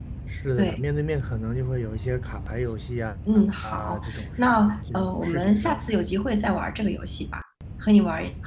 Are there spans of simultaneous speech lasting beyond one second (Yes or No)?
Yes